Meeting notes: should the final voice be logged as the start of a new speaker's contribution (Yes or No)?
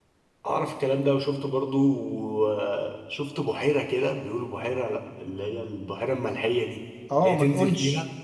Yes